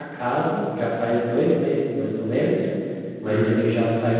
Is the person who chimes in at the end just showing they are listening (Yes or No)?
Yes